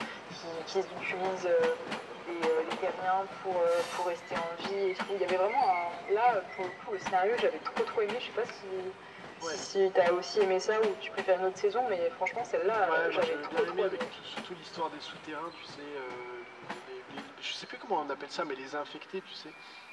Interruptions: present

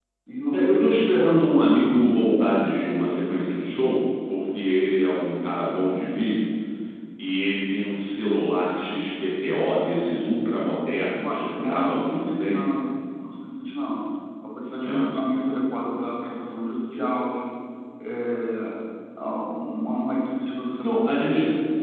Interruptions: present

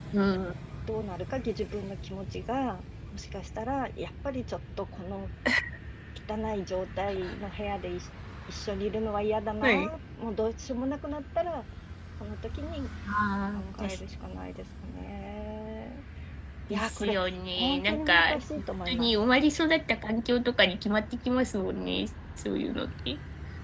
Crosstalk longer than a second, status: present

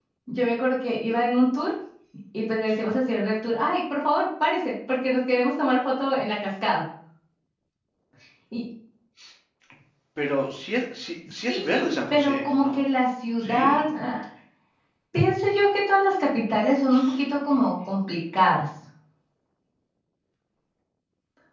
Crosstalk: present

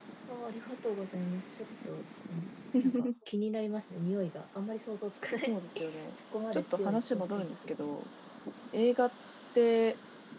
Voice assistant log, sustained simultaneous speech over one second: present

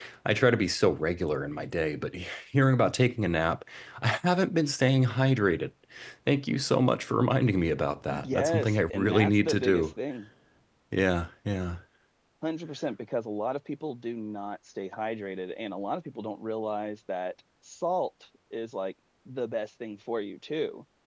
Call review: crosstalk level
present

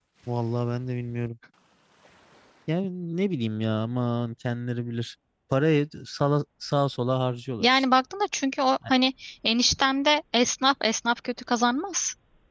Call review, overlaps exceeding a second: none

